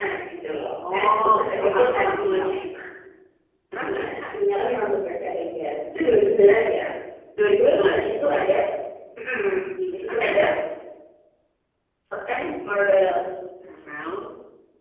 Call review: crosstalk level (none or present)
present